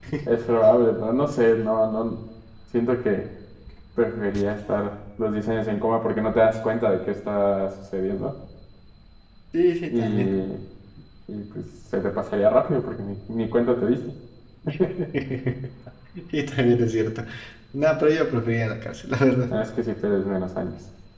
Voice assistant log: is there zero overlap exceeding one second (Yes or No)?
Yes